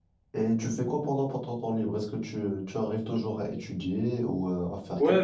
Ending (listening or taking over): taking over